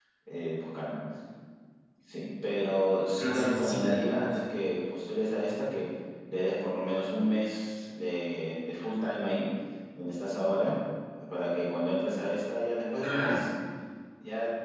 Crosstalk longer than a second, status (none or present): present